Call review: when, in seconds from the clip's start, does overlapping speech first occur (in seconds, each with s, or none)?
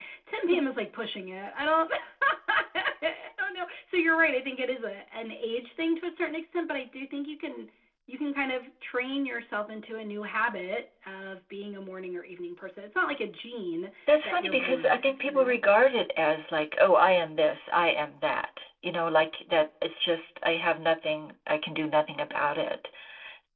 14.1 s